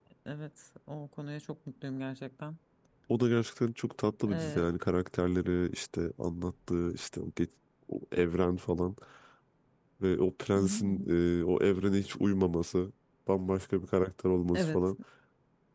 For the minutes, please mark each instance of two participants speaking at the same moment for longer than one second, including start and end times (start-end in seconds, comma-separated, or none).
none